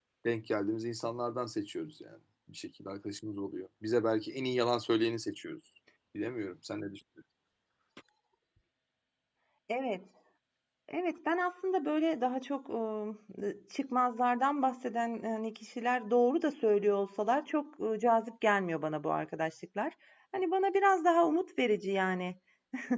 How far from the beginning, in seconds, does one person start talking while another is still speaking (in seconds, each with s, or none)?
none